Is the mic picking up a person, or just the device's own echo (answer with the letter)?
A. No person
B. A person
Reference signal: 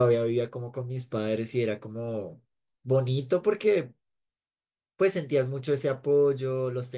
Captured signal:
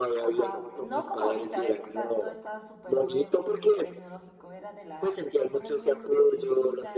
B